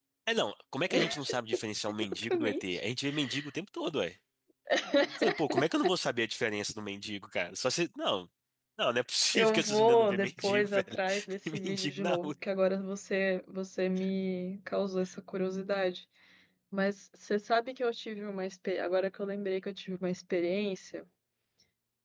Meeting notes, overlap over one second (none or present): present